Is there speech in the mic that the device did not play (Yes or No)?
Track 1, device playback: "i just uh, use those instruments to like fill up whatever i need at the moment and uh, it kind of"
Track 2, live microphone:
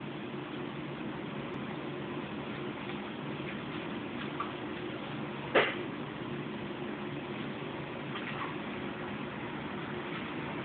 No